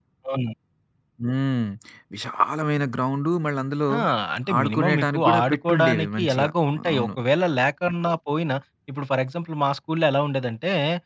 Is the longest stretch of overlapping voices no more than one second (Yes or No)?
No